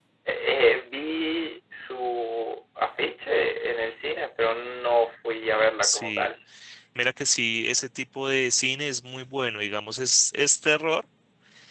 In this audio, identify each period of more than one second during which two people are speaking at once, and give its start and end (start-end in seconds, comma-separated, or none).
none